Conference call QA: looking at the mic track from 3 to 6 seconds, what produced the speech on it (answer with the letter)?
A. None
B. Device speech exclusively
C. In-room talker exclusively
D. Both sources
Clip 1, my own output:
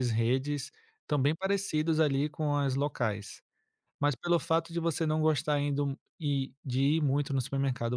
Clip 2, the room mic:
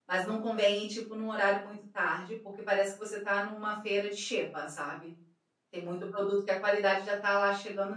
C